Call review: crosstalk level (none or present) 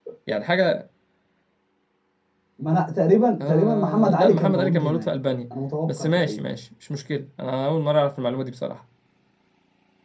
present